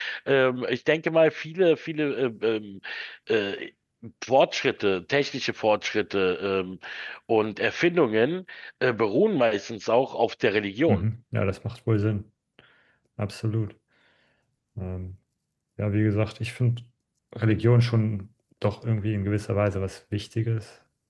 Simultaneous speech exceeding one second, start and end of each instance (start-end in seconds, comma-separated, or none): none